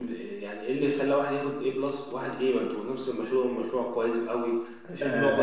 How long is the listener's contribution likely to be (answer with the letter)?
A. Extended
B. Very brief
A